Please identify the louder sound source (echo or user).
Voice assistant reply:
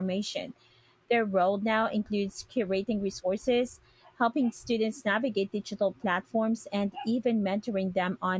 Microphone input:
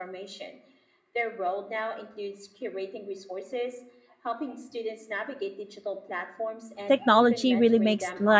user